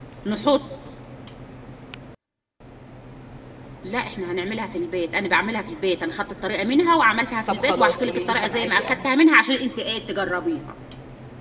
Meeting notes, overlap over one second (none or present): present